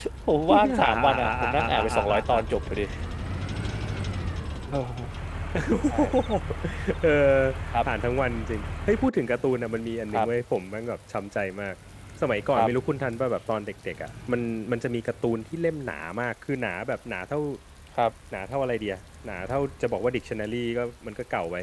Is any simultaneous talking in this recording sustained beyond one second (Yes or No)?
Yes